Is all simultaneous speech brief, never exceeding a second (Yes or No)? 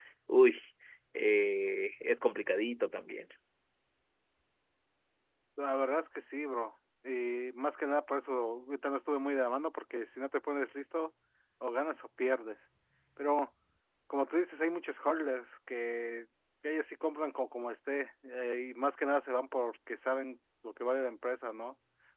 Yes